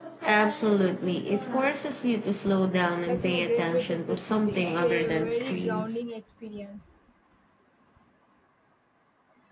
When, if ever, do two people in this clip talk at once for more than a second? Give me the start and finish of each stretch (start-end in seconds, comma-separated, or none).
3.0-6.0